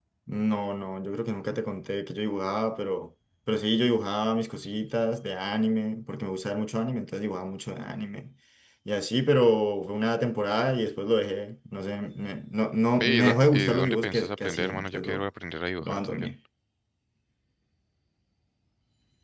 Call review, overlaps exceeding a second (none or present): present